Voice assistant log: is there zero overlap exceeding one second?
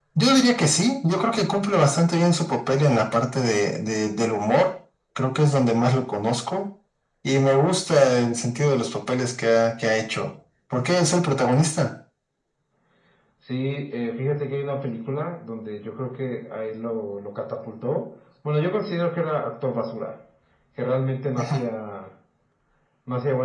Yes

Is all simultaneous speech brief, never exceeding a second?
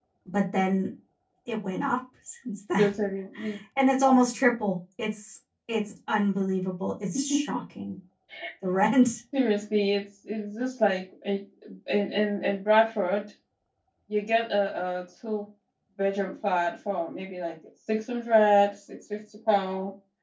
Yes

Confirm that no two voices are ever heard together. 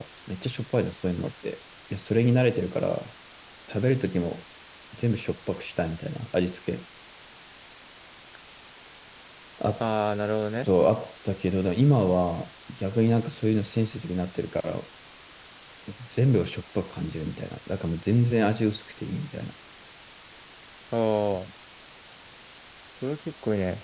Yes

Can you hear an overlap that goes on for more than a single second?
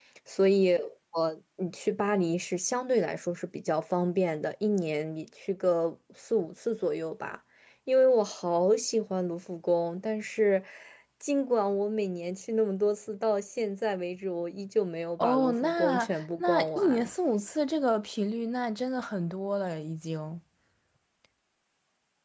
Yes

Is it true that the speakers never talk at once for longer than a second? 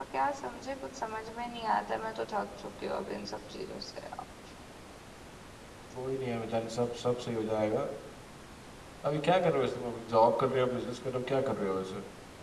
Yes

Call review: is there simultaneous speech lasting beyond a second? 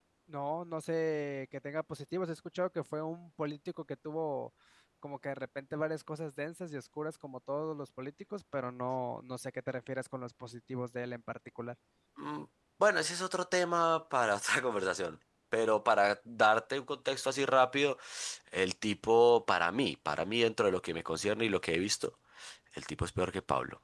No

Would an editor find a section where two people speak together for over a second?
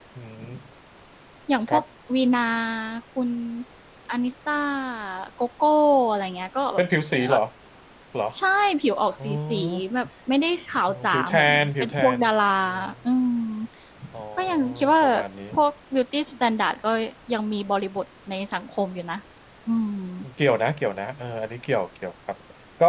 Yes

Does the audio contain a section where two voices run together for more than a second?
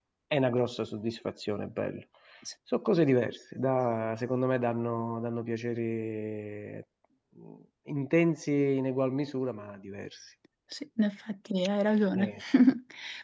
No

